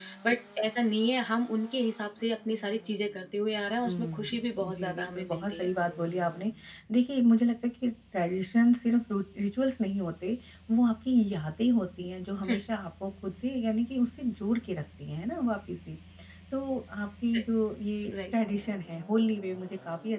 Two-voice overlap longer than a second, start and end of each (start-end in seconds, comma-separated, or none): 3.9-5.7